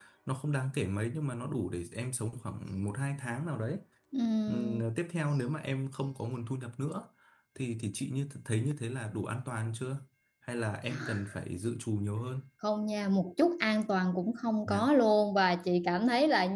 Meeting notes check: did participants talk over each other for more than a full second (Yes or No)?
No